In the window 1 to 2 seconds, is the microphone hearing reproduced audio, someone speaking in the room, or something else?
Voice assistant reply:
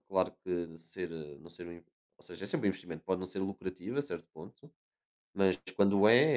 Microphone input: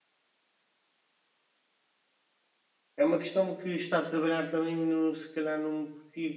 neither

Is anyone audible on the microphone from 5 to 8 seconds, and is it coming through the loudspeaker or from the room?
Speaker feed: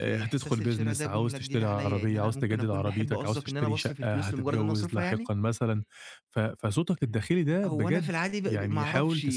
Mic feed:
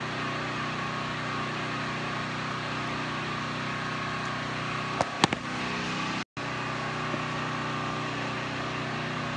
neither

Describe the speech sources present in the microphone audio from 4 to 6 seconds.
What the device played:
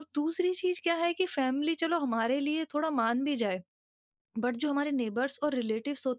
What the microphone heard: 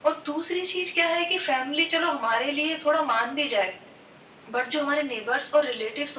echo only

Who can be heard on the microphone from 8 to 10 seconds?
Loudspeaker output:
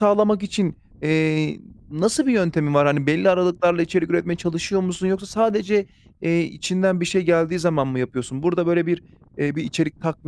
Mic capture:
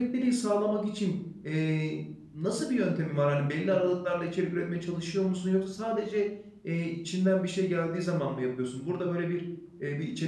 echo only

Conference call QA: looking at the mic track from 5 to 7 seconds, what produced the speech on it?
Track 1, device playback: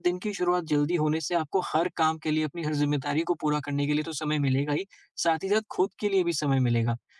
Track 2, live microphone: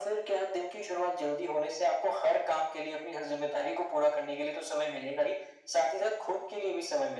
echo only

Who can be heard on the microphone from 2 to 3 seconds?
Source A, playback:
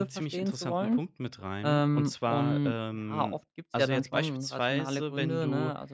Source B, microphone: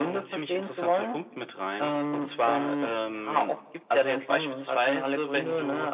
echo only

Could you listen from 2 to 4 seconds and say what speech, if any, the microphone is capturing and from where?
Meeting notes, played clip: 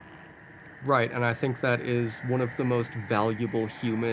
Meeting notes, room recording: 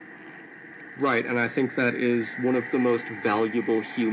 echo only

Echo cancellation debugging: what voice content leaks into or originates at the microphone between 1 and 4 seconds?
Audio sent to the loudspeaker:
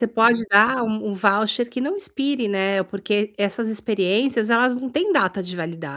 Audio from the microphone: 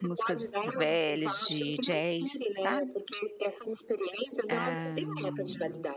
both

